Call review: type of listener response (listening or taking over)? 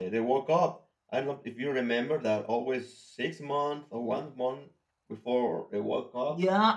taking over